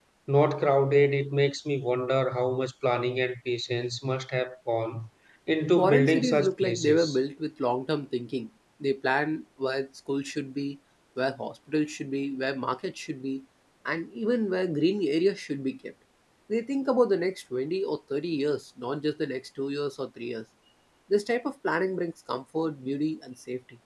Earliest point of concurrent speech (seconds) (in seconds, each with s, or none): 5.8 s